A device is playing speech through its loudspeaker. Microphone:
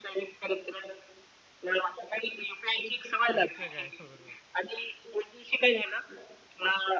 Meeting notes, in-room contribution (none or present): present